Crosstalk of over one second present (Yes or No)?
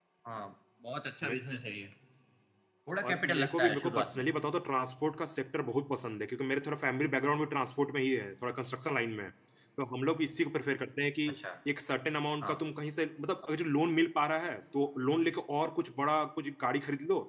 Yes